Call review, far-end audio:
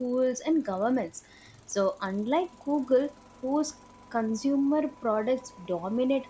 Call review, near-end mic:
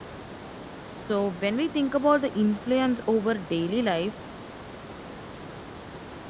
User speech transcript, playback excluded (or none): So when we think about the influence over daily life,